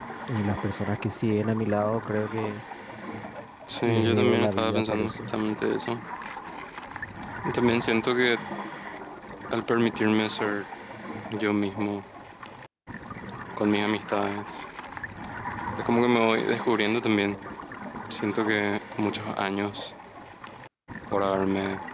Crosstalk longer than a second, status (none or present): present